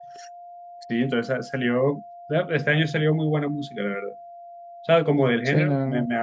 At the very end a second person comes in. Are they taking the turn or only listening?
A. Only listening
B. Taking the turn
A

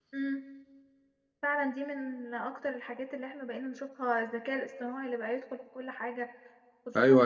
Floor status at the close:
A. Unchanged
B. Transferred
B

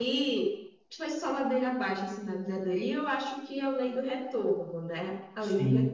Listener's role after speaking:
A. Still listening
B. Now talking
B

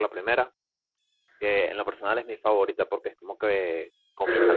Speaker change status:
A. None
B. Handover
A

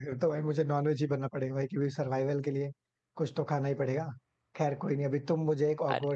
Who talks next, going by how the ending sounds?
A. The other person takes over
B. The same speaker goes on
B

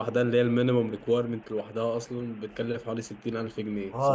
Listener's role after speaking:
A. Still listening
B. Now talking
B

